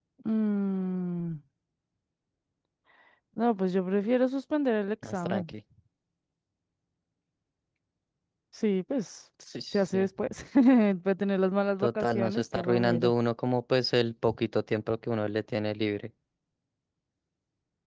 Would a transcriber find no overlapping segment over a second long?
No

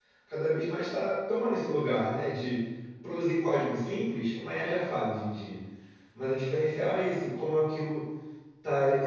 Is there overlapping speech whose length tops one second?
No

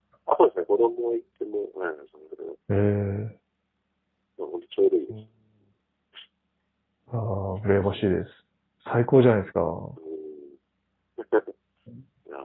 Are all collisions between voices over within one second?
Yes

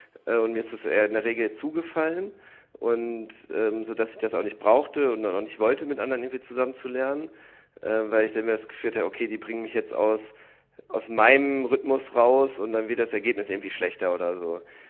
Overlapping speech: No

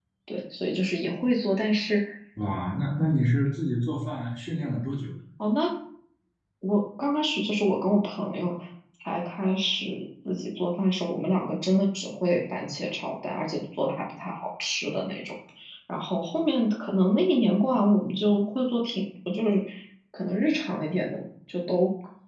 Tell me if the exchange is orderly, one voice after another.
Yes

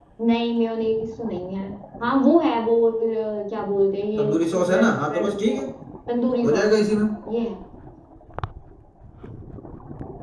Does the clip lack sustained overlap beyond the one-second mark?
No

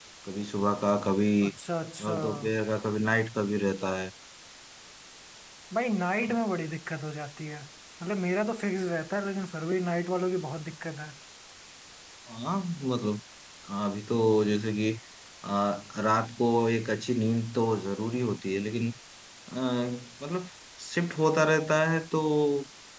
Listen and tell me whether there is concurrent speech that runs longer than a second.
No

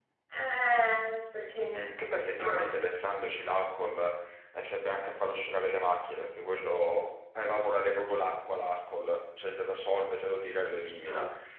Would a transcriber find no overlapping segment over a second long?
Yes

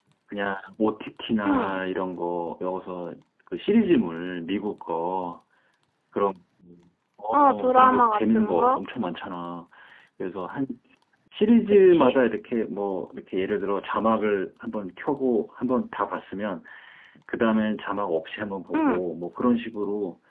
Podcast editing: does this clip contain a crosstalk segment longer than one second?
Yes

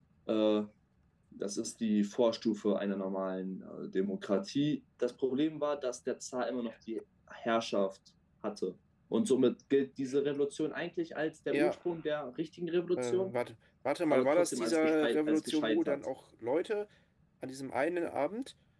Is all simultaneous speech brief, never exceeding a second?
No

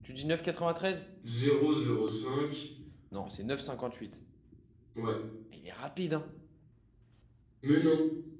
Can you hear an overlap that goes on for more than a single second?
No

